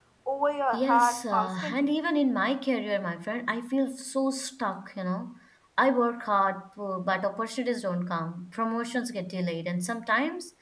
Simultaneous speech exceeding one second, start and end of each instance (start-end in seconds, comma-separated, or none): 0.7-1.9